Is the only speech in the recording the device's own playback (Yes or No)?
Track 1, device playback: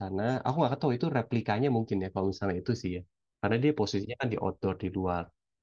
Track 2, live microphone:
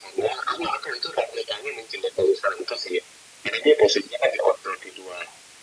Yes